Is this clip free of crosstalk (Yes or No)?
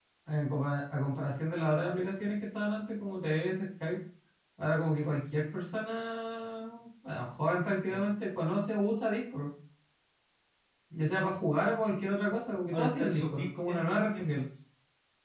No